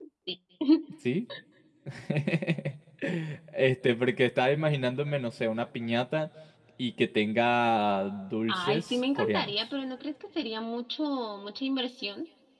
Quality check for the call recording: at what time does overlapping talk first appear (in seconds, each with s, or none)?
8.5 s